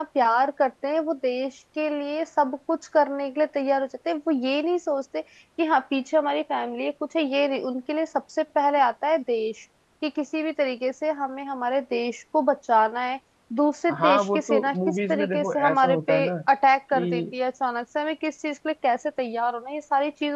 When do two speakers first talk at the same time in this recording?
14.0 s

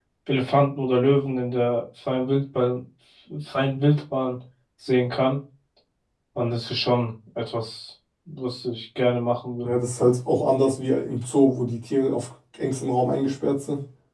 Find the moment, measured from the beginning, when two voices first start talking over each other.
none

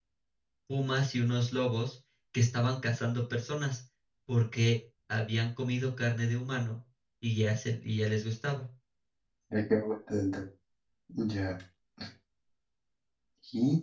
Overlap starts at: none

